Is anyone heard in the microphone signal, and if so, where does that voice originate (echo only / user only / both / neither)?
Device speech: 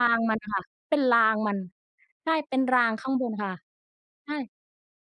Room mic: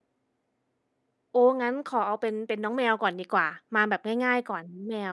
user only